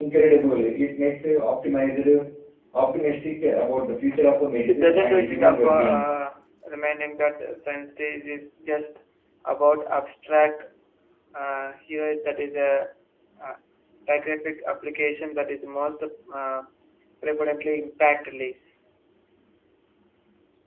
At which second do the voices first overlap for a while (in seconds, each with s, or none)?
4.7 s